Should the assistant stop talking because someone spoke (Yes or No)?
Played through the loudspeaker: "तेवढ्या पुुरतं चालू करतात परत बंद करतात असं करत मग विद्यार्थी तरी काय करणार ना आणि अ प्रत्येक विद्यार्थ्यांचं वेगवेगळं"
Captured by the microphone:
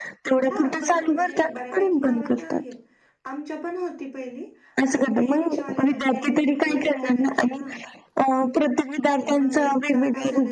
Yes